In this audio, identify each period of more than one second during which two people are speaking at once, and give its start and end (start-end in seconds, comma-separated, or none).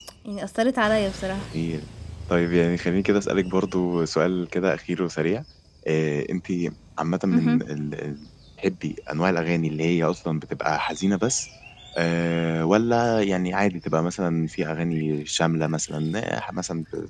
none